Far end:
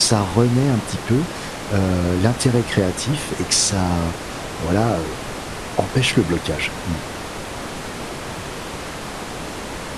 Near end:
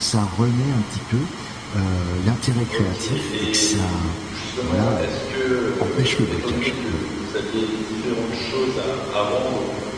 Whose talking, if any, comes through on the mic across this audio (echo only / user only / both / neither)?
both